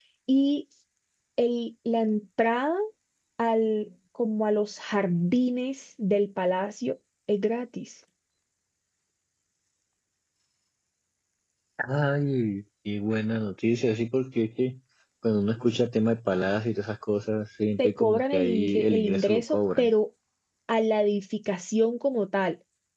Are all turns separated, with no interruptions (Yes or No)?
No